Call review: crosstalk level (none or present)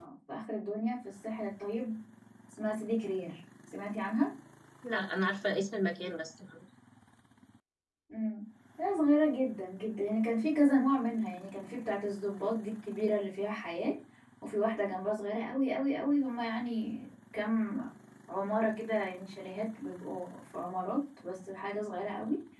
none